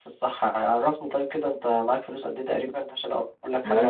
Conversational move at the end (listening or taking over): taking over